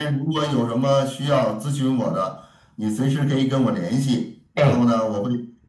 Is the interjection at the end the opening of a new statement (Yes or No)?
No